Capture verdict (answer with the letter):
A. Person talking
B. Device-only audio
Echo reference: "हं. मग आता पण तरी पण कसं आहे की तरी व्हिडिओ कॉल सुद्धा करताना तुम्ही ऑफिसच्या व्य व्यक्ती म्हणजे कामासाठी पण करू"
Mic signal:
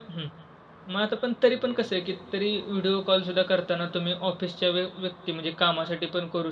B